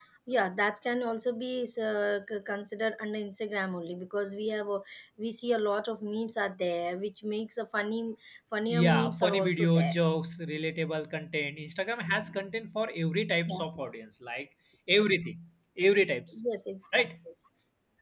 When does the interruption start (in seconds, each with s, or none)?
8.7 s